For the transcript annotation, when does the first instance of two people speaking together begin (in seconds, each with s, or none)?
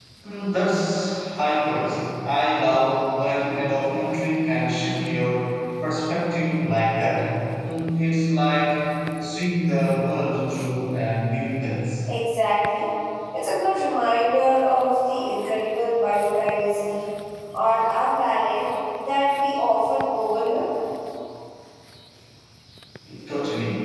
none